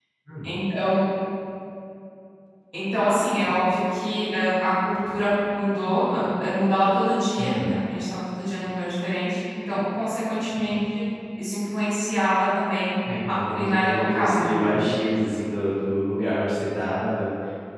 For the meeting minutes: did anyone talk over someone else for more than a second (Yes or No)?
Yes